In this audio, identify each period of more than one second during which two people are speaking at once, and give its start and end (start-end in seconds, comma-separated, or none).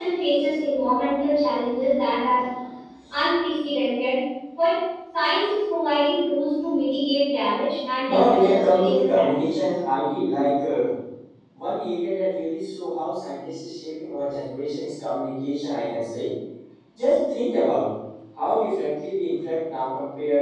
8.1-9.7